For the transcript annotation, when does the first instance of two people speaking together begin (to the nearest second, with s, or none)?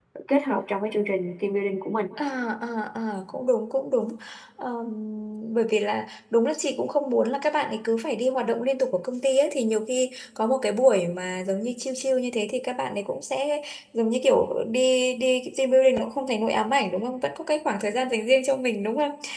none